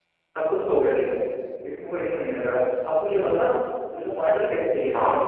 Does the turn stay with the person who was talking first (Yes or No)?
Yes